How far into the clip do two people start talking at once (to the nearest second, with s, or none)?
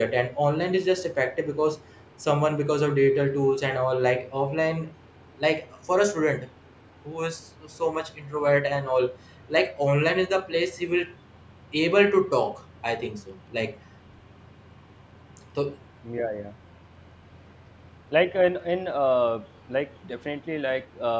none